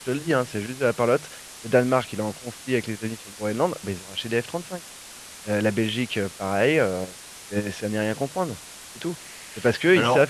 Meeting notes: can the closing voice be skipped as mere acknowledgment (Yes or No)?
Yes